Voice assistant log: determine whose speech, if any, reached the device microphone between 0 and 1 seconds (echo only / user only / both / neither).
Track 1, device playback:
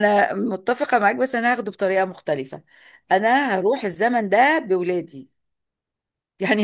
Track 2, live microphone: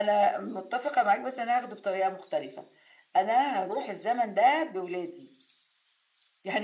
echo only